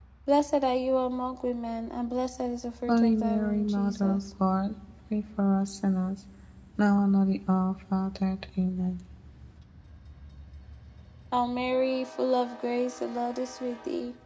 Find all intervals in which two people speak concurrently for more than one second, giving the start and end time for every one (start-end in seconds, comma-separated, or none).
2.9-4.2